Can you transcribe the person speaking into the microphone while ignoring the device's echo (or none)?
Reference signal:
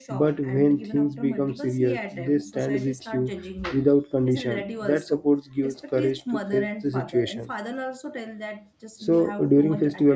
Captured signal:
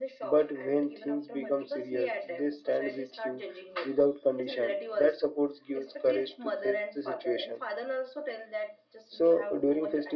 none